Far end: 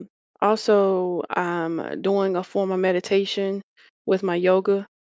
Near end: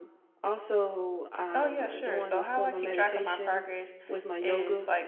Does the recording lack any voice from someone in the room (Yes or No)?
No